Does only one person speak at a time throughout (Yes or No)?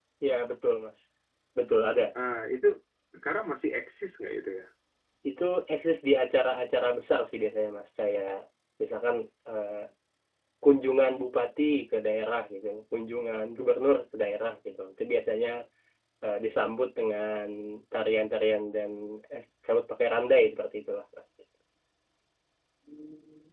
Yes